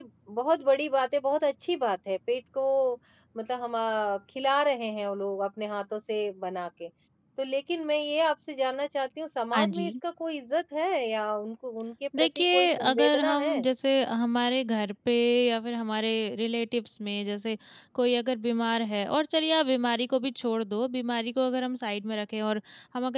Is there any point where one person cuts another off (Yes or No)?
Yes